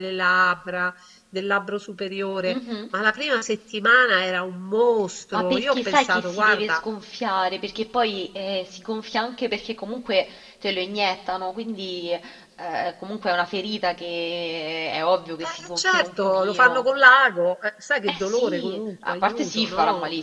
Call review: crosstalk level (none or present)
present